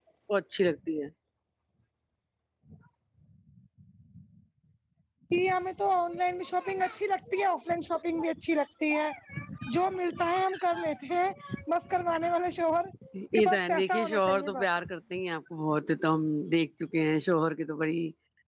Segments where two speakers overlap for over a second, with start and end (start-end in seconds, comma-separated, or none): 13.3-14.7